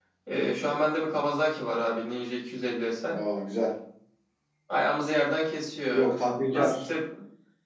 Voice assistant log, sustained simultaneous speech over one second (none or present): none